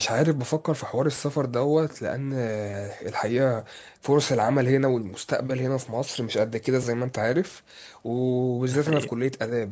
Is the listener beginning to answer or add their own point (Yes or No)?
No